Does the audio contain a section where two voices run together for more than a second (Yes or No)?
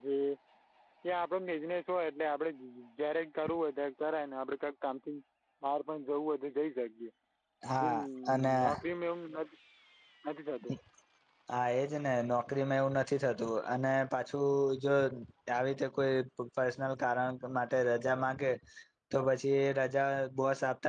No